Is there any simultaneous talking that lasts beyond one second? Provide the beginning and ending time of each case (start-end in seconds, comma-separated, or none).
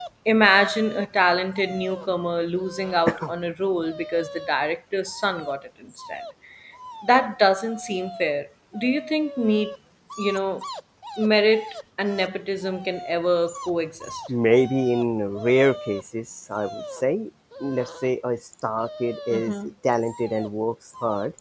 none